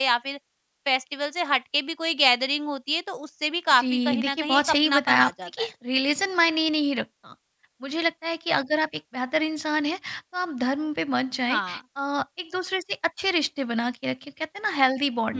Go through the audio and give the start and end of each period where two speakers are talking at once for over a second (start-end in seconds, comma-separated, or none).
3.8-5.7